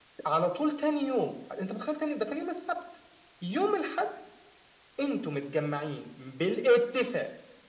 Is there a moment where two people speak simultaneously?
No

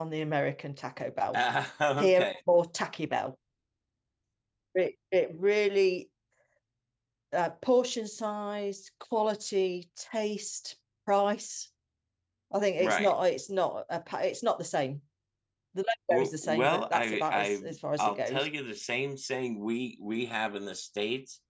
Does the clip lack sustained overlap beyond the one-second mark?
No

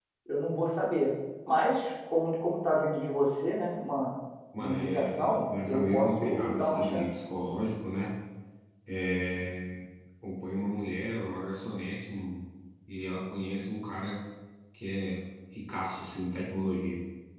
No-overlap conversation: No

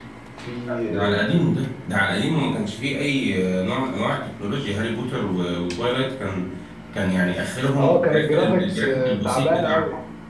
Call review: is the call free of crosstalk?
No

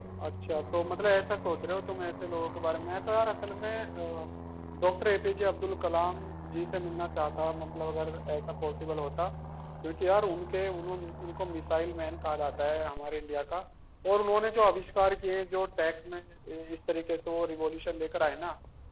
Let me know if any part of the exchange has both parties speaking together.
No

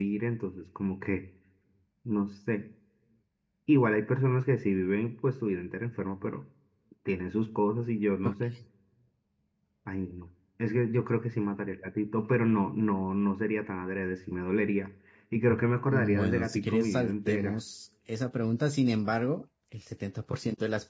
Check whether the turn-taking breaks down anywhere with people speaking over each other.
Yes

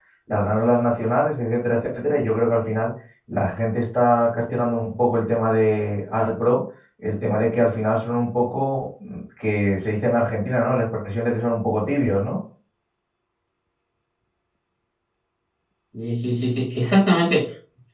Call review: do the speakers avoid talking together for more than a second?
Yes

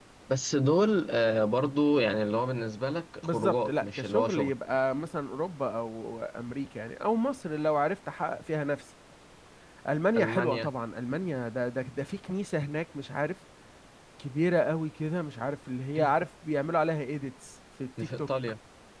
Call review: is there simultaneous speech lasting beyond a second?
Yes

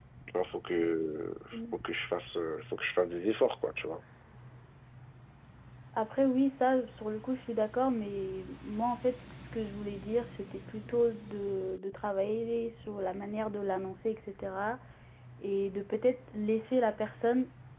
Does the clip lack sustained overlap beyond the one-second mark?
Yes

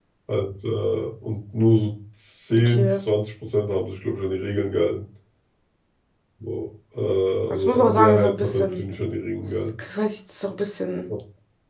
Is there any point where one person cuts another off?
Yes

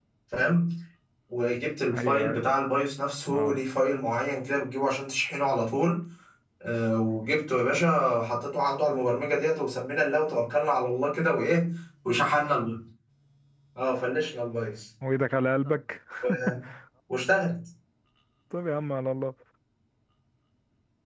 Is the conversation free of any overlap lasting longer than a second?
Yes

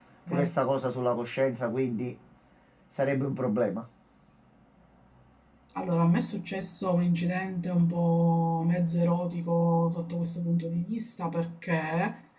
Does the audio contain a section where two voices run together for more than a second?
No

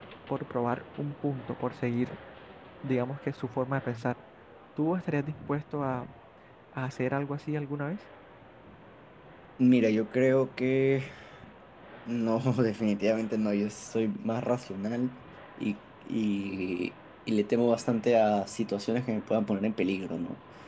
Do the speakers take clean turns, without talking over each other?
Yes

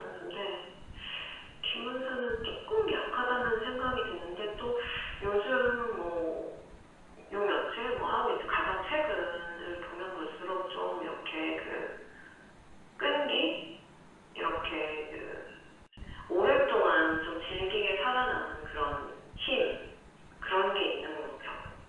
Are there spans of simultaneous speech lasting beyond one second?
No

